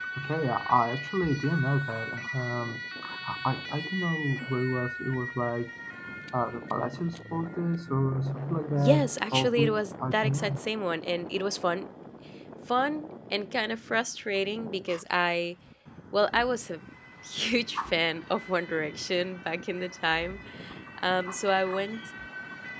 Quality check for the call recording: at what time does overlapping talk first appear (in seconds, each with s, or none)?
8.8 s